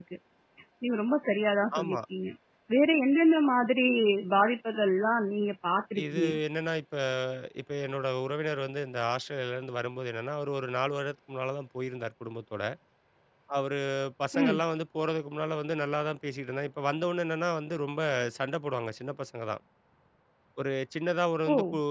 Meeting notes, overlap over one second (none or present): none